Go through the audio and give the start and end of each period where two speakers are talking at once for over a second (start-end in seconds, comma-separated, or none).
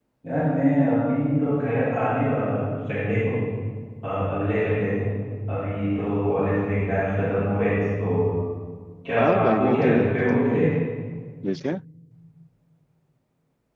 9.2-10.6